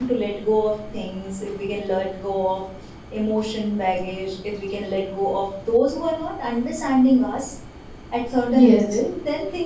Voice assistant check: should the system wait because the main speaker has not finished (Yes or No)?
Yes